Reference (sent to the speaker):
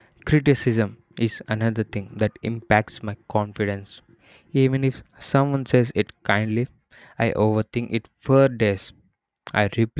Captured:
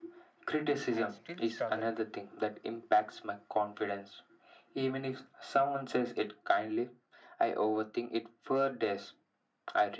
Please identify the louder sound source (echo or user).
echo